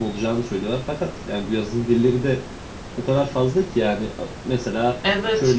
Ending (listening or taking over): listening